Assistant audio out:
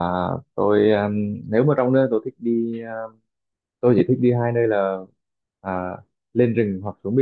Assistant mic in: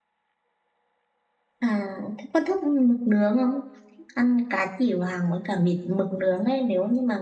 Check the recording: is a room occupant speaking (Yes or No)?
Yes